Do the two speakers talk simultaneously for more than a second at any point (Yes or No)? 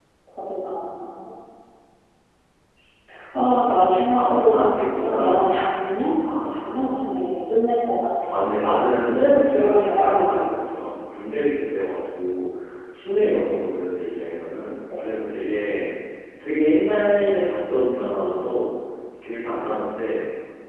Yes